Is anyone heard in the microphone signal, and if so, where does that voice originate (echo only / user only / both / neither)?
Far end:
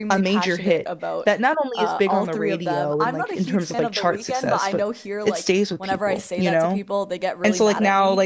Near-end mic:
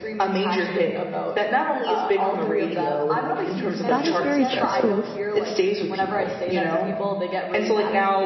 both